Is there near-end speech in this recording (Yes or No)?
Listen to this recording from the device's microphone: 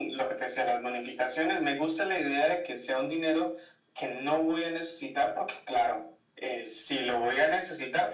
No